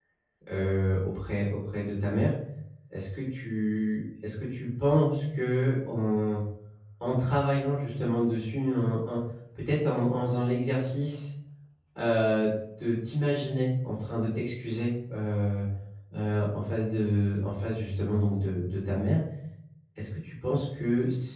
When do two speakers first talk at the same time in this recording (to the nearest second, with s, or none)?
none